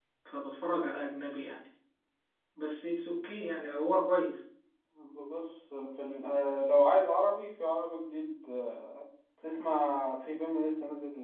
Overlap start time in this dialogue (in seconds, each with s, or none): none